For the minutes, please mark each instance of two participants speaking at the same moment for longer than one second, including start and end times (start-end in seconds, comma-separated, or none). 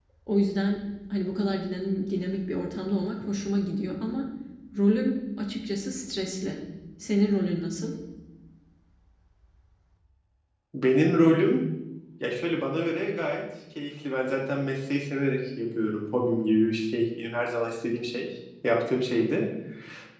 none